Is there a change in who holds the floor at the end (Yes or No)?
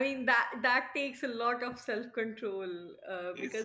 No